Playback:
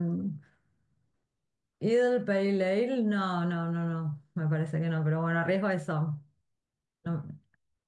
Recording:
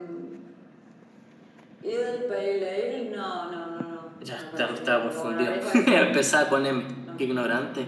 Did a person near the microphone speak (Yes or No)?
Yes